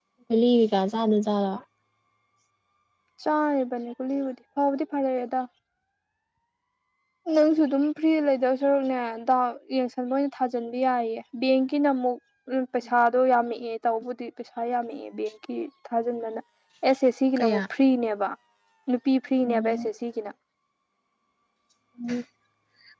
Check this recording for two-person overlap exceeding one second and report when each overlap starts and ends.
none

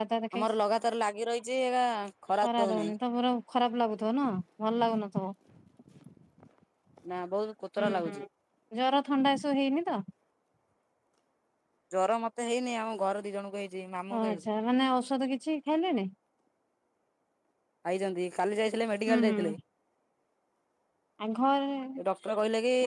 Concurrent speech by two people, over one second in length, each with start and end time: none

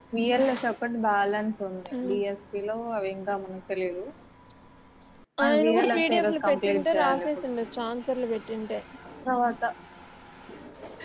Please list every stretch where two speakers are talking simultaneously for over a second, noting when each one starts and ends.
5.4-7.3

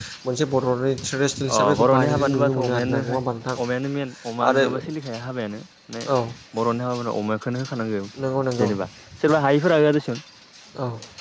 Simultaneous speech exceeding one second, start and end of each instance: 1.6-3.2

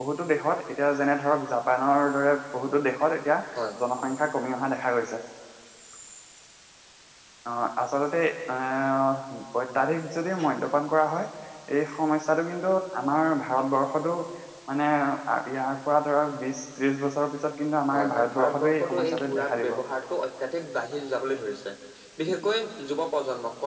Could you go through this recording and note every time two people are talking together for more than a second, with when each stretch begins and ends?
17.9-19.8

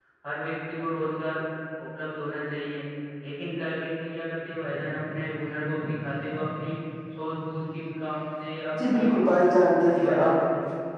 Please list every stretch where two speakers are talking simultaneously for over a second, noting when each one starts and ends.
none

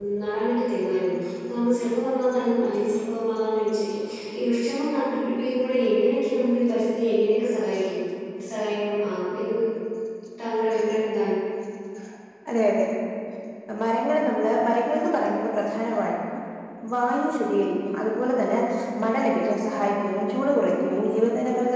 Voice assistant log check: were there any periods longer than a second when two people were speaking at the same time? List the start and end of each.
none

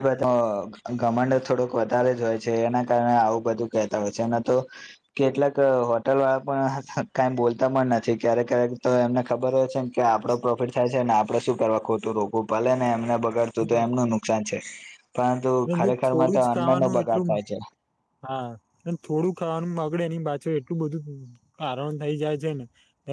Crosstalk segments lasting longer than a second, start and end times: 15.7-17.2

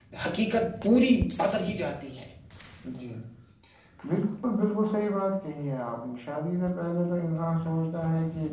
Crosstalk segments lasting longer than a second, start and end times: none

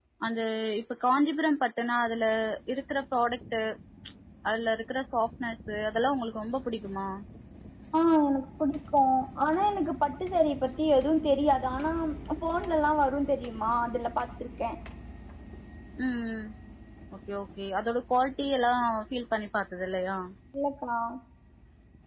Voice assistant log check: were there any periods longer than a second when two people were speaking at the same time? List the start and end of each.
none

